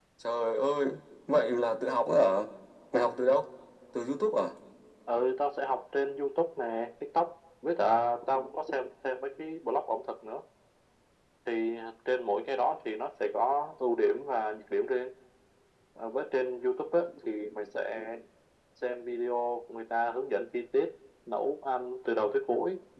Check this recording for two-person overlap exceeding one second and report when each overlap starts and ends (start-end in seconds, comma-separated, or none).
none